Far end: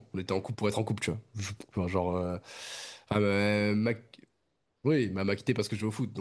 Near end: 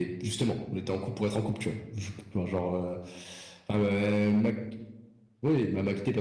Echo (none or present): present